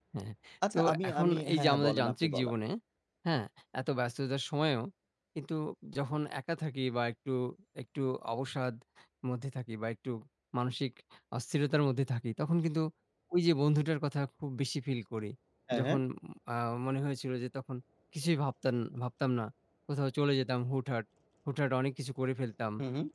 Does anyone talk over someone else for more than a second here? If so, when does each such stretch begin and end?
0.7-2.5

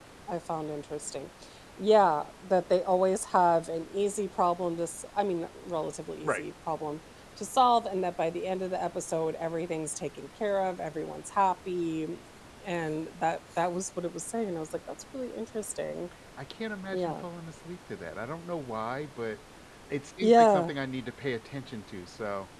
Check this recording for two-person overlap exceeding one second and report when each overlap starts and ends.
none

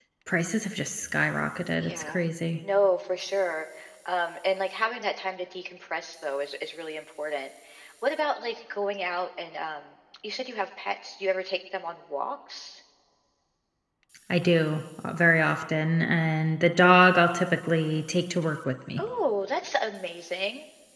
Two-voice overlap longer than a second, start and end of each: none

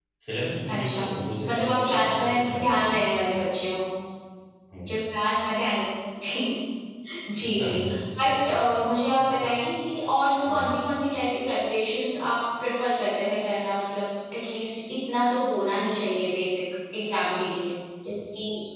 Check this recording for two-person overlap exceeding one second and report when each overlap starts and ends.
1.5-3.0

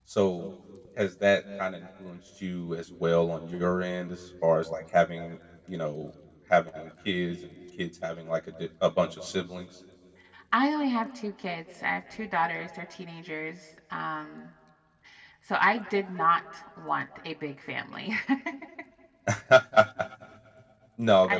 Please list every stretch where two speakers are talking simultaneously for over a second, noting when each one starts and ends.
none

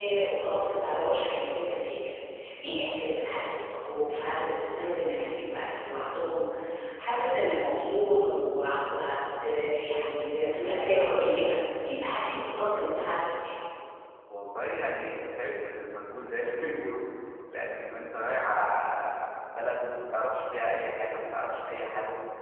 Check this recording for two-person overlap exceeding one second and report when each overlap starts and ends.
none

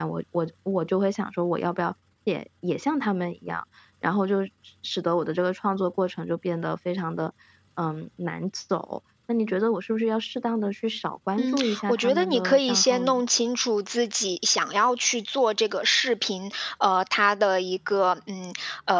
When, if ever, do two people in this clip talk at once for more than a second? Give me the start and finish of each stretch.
11.4-13.2

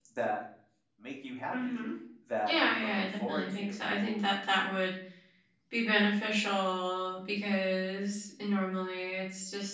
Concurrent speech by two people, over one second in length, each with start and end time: 2.5-3.8

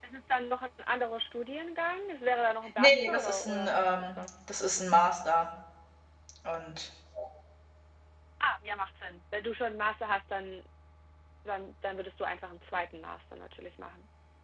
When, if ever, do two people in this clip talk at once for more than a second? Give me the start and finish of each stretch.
2.8-4.2

